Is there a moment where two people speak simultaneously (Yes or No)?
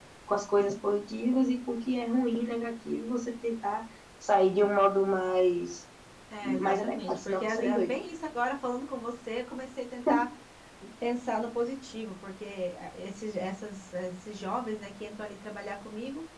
Yes